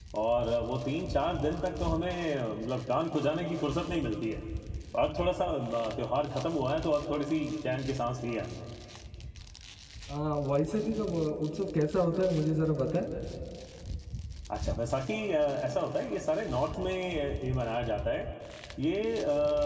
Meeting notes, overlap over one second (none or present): none